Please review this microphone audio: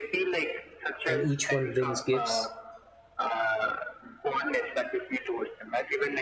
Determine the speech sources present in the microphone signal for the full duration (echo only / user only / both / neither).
both